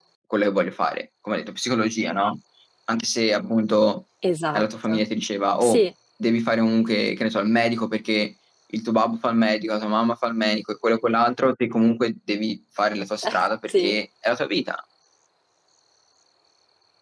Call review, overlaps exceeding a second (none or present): none